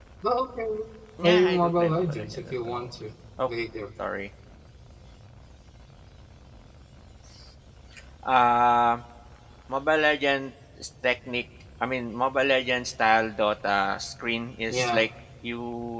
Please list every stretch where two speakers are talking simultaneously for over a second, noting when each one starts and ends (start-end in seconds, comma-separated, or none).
1.2-2.9